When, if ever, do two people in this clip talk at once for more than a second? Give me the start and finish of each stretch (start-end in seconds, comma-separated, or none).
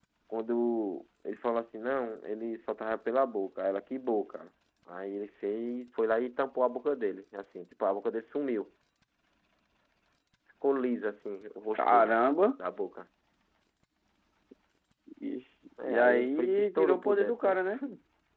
15.8-17.6